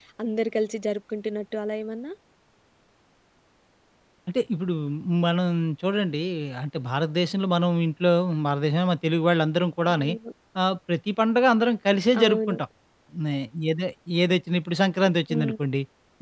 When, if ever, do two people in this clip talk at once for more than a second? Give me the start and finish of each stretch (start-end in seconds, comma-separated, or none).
none